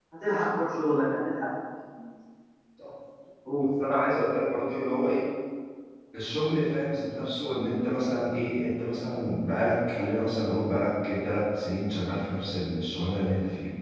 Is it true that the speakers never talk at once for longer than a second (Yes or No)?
Yes